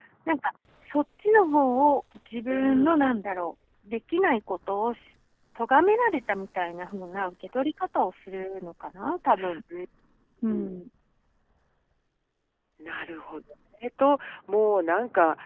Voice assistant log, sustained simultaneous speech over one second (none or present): none